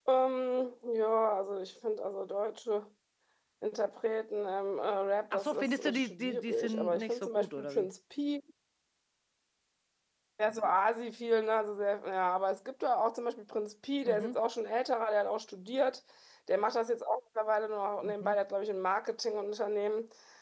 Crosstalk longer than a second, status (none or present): present